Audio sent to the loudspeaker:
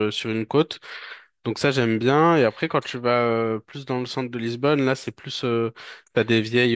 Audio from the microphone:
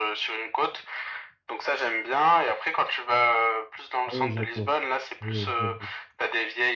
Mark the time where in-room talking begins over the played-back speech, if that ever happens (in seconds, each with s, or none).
4.0 s